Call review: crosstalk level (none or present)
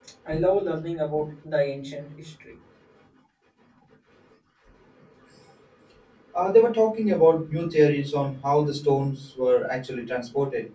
none